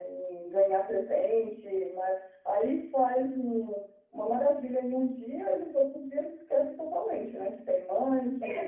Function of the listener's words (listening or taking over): taking over